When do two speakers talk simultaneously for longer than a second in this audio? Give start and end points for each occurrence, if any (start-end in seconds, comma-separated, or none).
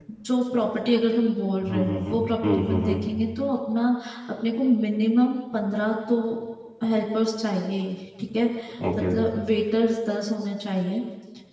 1.7-3.0